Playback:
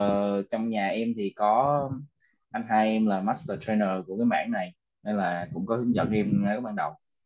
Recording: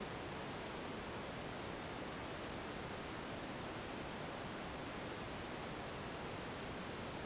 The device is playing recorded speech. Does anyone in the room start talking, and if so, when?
none

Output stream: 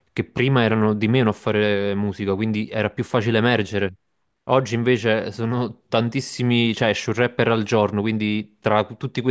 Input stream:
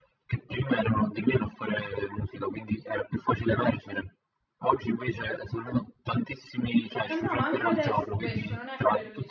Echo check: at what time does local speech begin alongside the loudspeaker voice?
7.0 s

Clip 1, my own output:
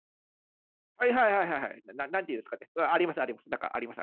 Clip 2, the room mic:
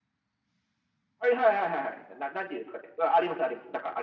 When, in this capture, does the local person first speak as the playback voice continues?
none

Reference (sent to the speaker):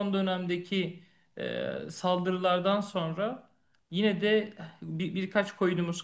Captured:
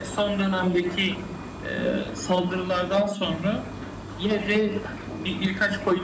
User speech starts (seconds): none

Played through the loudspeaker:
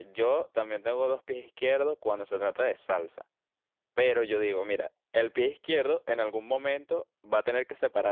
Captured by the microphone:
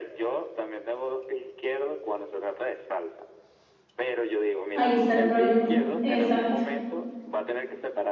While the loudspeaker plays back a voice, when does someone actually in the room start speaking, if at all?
4.7 s

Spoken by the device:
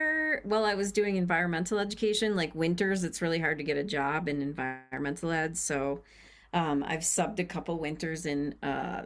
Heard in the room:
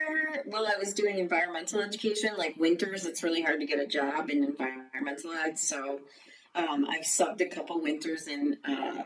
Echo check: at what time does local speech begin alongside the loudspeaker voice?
none

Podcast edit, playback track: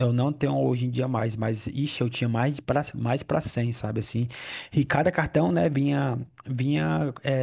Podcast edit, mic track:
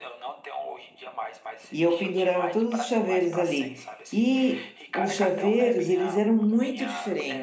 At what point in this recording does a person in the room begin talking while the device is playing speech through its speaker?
1.7 s

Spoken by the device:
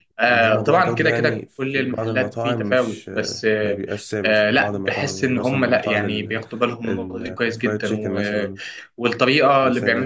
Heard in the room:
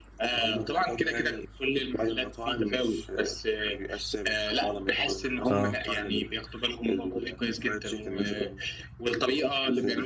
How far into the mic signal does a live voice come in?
5.5 s

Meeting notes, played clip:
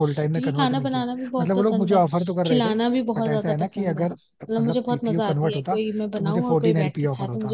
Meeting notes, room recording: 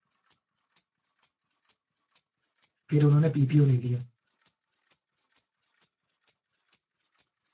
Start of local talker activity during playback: 2.9 s

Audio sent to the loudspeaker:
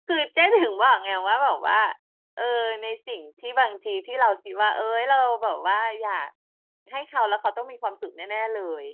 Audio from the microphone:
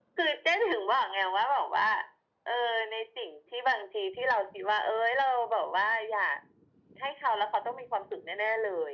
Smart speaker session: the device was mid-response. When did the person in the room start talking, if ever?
none

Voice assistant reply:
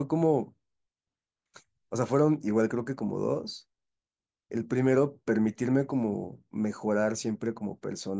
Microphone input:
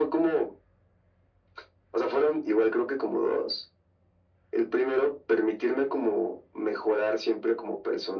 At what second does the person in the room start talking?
none

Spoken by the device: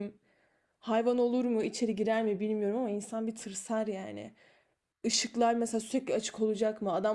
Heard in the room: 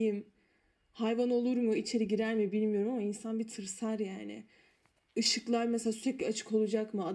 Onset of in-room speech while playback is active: none

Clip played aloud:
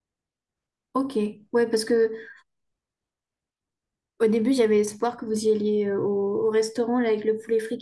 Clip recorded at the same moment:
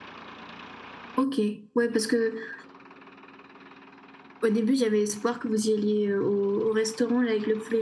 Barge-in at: none

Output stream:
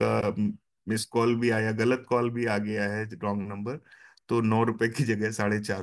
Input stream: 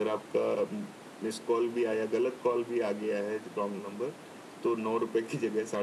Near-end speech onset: none

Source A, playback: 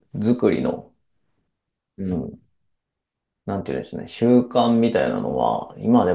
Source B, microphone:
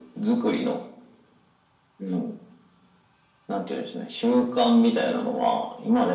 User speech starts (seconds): none

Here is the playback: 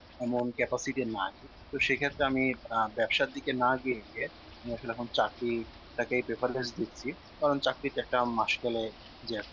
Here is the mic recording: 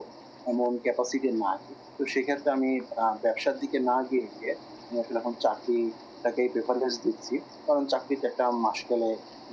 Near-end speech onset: none

